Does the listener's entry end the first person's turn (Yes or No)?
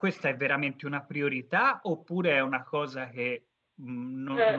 Yes